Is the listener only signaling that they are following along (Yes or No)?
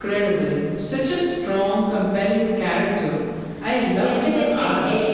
No